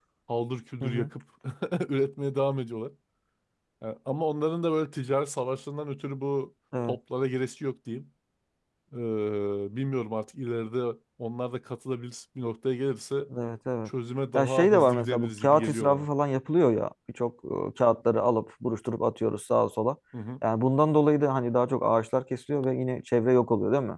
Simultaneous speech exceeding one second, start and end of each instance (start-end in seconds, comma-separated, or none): 14.3-16.1